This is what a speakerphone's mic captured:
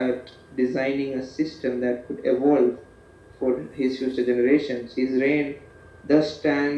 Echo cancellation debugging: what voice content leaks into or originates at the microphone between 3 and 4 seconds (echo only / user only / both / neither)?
echo only